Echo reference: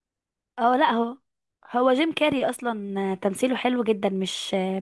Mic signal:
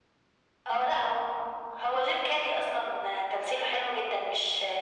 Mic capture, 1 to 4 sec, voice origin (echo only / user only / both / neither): echo only